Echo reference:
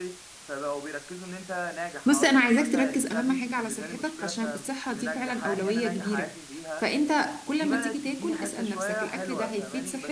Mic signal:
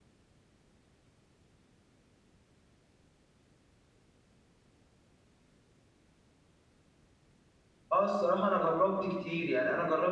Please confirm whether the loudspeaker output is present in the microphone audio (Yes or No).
No